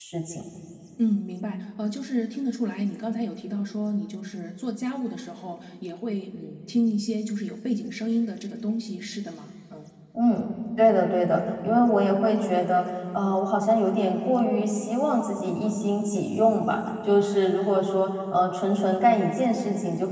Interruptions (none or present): none